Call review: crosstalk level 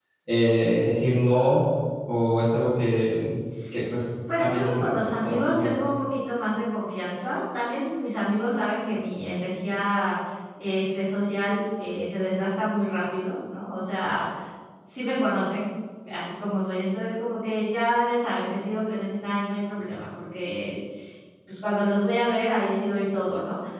present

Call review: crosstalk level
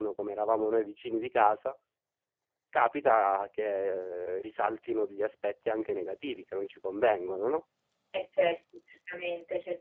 none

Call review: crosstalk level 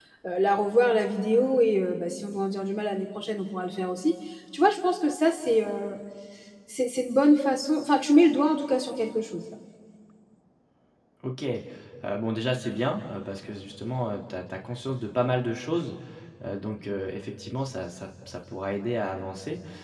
none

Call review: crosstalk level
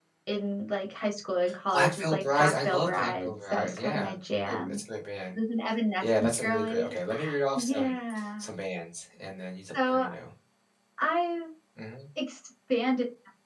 present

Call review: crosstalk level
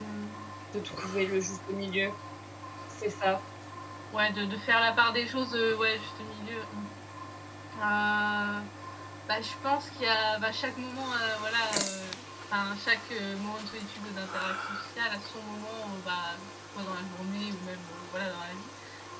none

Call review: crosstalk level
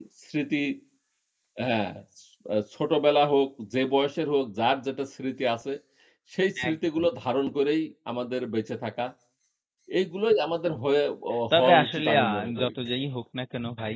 present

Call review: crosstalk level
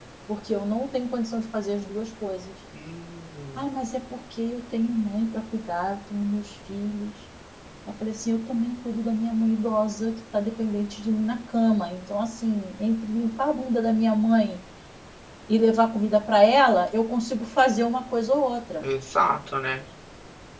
none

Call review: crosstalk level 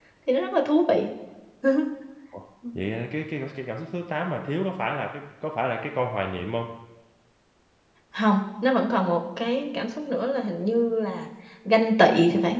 none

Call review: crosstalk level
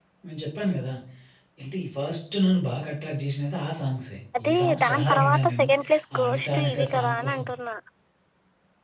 present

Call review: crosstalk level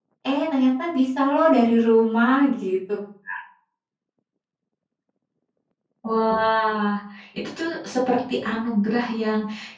none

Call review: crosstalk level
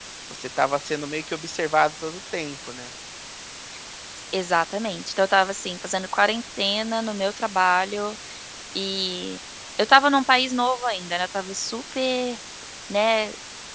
none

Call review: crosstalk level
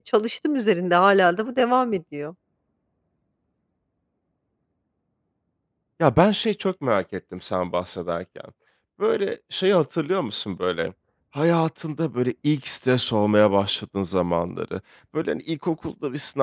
none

